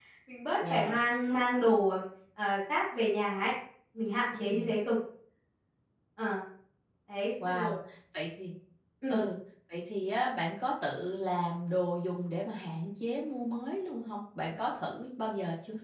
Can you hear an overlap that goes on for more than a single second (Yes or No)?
No